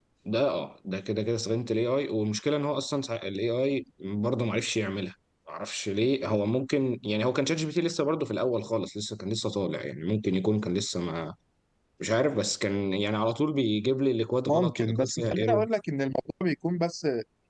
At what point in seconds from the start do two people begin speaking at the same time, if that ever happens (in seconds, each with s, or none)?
14.4 s